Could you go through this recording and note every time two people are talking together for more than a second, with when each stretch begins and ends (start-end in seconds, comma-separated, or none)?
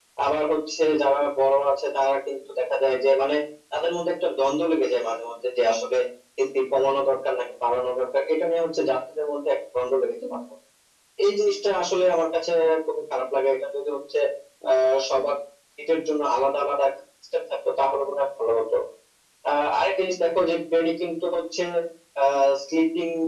none